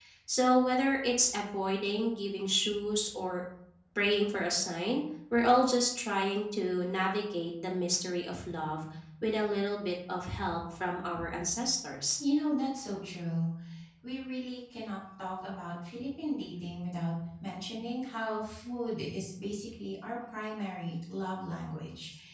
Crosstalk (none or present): none